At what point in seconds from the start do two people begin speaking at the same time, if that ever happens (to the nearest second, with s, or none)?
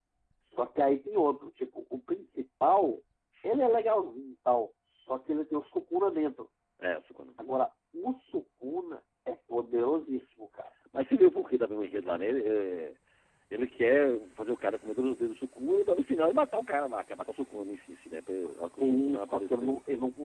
18 s